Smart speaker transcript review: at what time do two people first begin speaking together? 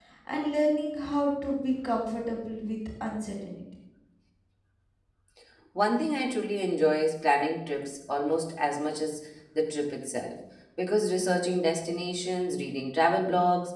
none

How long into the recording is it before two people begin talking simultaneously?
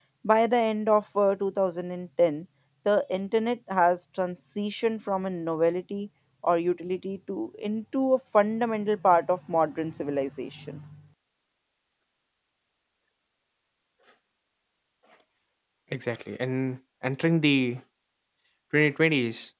none

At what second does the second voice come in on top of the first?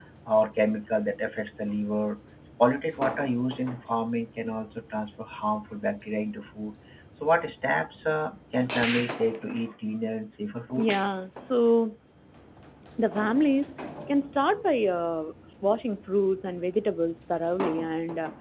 none

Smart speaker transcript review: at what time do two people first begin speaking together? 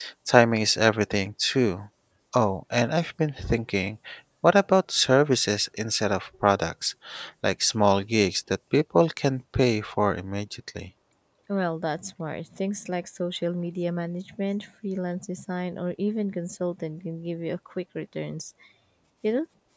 none

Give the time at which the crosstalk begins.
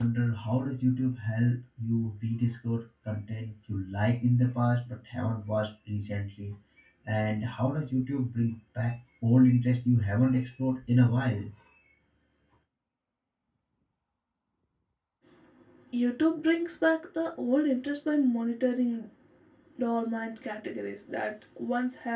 none

